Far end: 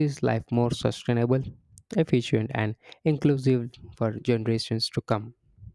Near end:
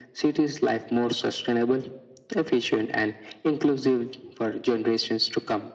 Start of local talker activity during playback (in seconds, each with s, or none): none